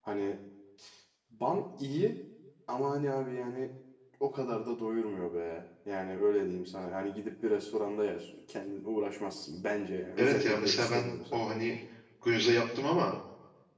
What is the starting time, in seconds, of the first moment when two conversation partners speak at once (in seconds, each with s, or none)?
10.2 s